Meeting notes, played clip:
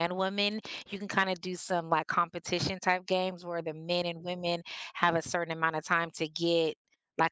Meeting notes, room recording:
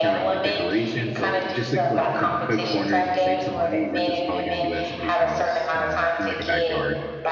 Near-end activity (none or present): present